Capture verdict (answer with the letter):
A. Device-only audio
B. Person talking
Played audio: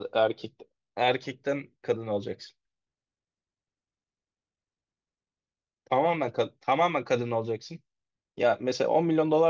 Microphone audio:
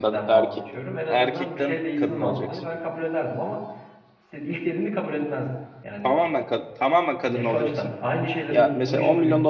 B